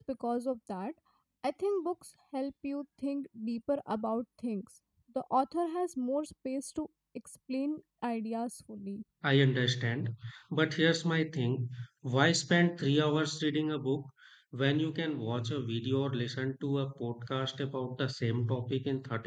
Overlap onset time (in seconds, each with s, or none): none